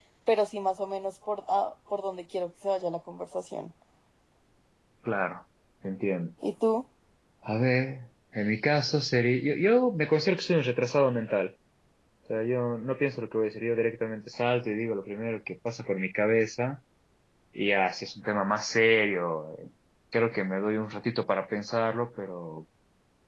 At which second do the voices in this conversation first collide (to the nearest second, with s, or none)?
none